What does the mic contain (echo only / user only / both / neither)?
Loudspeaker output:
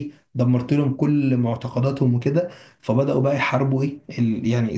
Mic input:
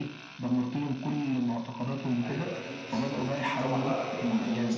both